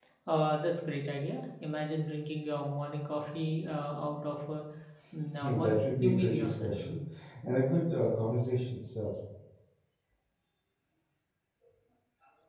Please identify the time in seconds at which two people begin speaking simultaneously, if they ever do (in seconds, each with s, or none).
5.4 s